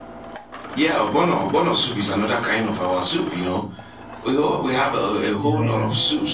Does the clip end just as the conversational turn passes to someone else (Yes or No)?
No